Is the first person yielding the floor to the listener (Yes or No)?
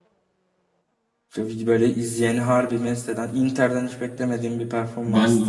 Yes